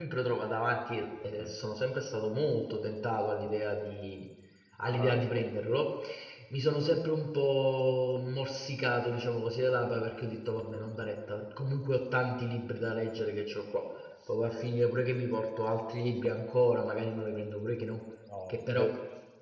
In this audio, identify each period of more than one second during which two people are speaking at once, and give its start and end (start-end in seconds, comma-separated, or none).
none